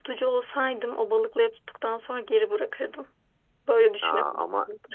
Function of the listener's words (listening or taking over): taking over